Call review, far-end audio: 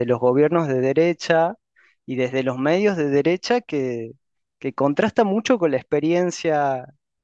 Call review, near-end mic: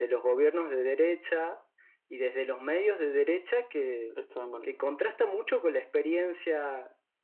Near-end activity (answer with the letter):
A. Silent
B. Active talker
B